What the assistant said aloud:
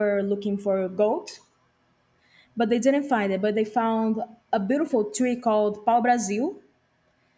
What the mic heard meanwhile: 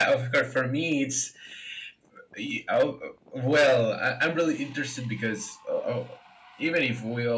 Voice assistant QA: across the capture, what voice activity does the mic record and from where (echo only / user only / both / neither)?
user only